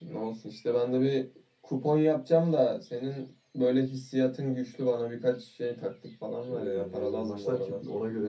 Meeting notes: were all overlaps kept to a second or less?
No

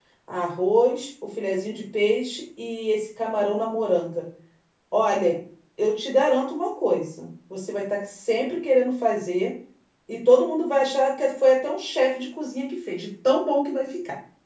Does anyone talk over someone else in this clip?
No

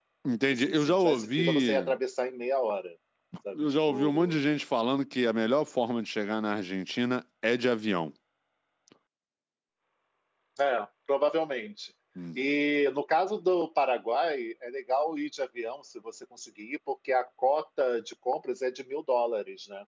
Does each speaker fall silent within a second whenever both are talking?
No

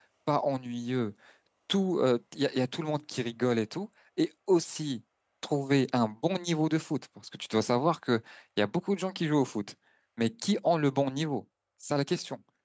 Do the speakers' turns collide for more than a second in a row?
No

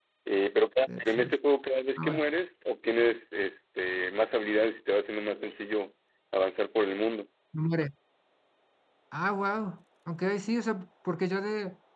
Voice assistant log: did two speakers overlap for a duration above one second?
No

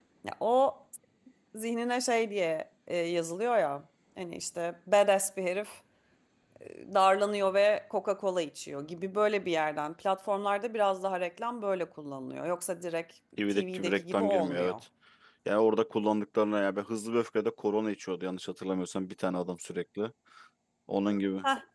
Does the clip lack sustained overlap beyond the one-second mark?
No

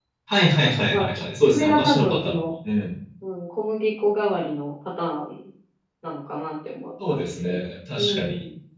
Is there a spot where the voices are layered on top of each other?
Yes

